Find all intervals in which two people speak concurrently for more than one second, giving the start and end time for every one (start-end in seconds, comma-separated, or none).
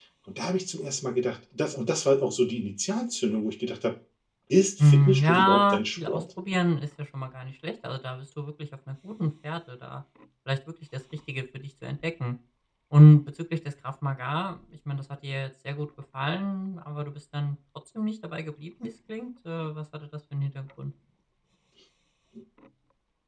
4.8-6.2